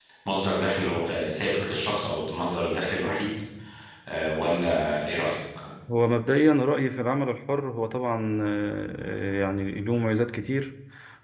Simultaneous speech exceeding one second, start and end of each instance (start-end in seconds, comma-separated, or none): none